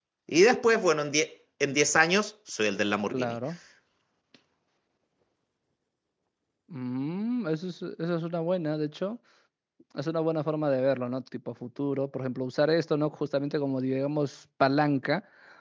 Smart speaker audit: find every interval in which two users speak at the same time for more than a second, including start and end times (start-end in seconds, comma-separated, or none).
none